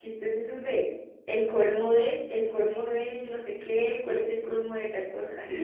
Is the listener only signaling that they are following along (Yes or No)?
No